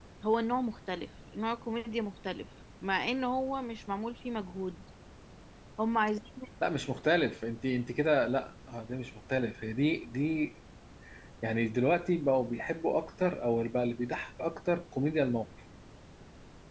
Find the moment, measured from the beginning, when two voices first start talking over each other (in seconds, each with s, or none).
none